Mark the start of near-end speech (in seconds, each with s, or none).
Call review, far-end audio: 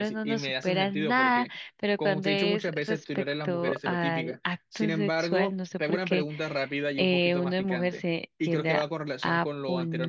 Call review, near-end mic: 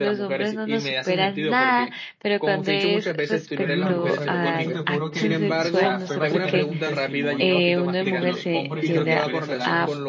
3.6 s